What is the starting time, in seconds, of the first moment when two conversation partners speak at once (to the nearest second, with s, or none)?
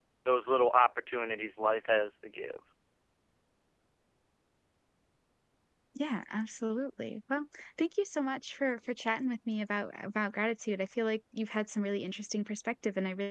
none